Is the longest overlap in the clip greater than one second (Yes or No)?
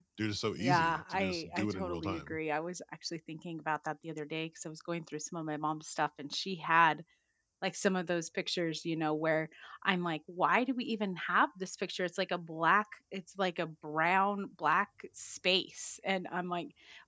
Yes